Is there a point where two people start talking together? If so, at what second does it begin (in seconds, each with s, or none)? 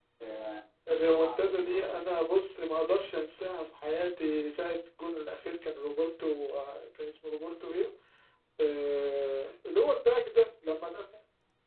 0.9 s